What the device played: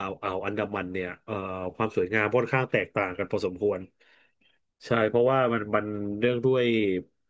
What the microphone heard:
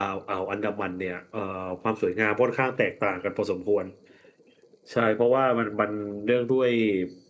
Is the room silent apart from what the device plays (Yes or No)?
Yes